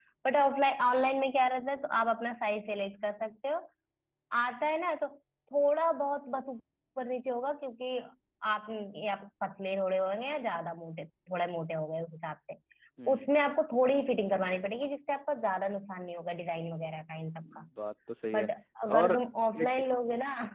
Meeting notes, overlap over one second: none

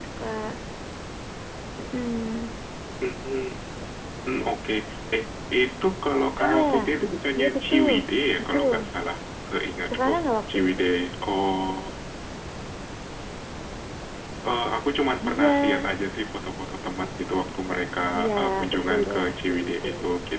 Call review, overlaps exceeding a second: present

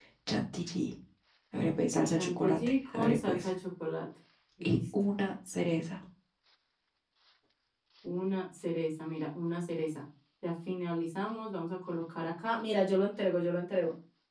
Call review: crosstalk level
present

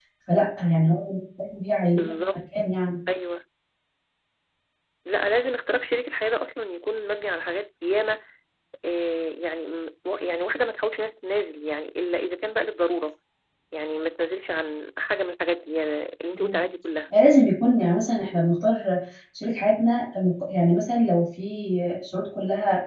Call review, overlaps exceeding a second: none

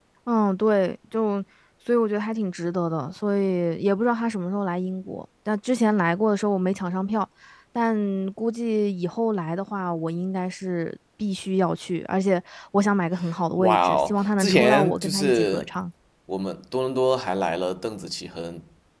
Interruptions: present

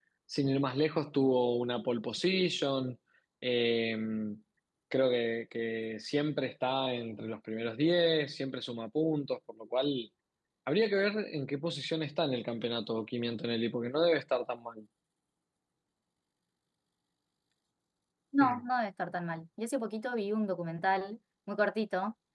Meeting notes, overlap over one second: none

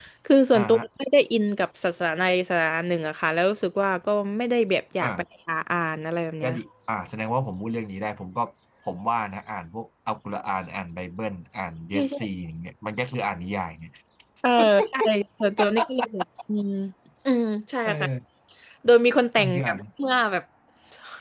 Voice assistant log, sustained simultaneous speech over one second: none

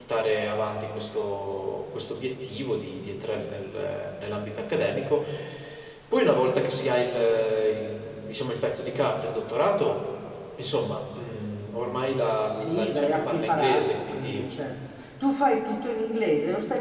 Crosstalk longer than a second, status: present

